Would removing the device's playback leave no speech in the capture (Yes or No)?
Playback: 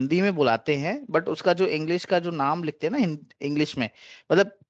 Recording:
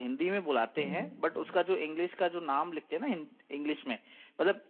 No